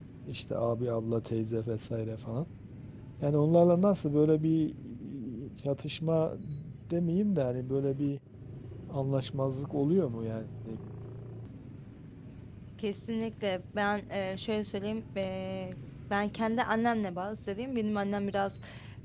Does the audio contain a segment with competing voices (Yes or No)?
No